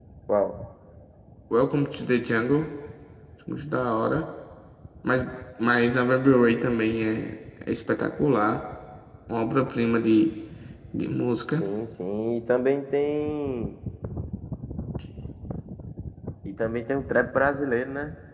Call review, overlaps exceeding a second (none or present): none